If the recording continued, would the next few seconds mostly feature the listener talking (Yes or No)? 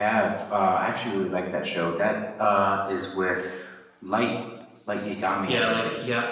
Yes